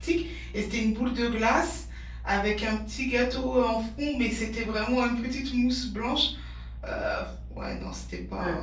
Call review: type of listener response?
taking over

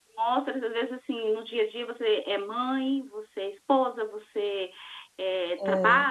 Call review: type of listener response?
listening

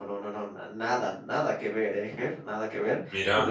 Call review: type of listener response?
listening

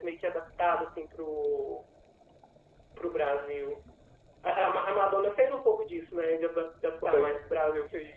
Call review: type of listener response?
listening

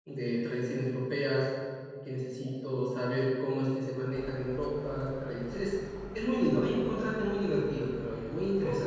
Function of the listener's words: taking over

